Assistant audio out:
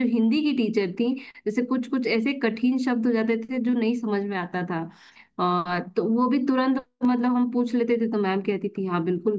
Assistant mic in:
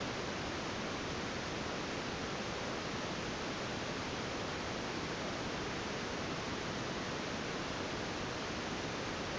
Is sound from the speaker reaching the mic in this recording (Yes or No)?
No